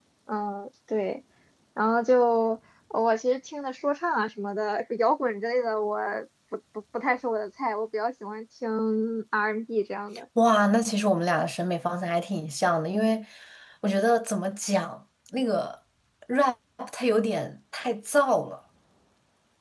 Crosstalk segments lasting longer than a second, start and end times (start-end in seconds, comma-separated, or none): none